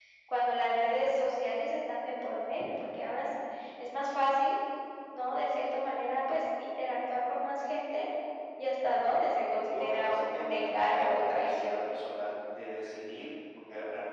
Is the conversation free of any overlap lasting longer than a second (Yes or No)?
No